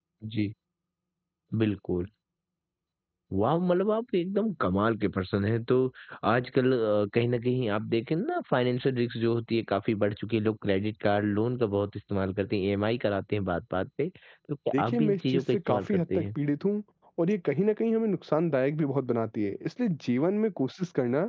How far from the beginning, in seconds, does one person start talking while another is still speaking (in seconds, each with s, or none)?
14.7 s